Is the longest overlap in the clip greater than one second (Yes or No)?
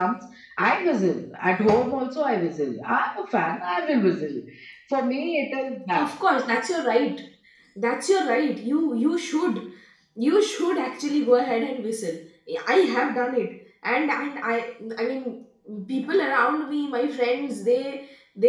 No